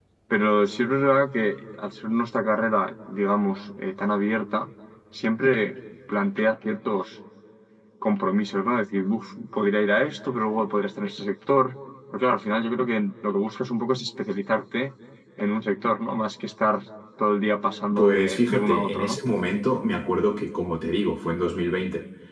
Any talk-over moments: Yes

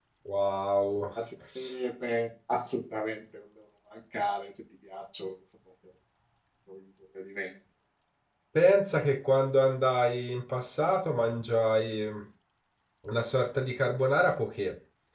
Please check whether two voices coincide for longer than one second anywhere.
No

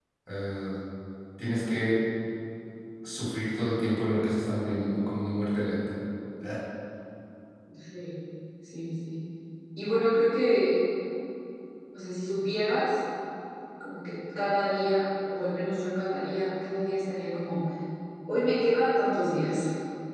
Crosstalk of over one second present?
No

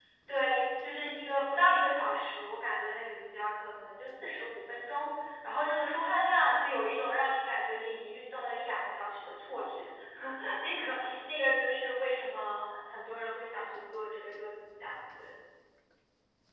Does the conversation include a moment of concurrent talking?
No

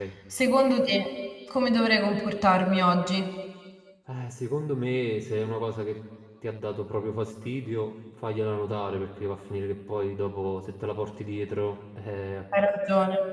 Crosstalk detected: No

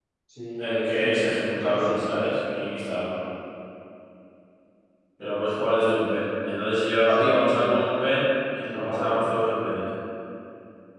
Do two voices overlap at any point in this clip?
Yes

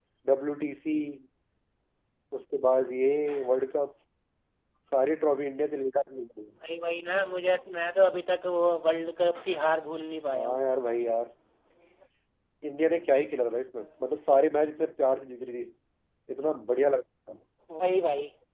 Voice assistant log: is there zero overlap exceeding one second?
Yes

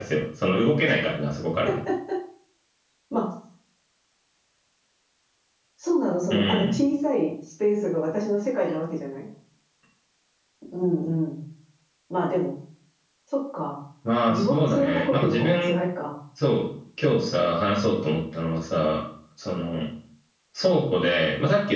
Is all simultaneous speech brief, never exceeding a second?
No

